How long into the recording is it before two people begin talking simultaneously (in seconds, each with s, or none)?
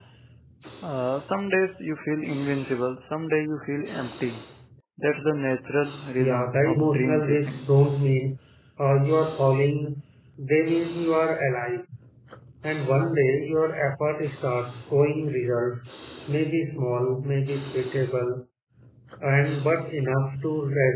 6.2 s